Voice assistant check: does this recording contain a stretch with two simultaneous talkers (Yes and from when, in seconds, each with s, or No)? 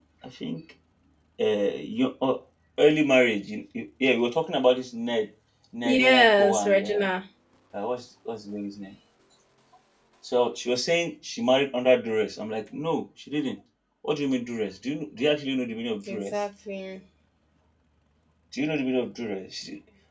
Yes, from 5.8 s